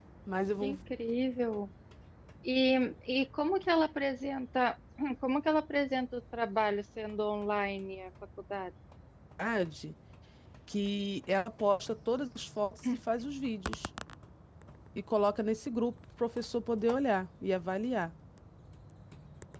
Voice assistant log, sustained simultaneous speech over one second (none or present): none